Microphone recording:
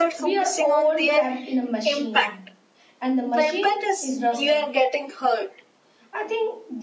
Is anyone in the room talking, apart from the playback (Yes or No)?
Yes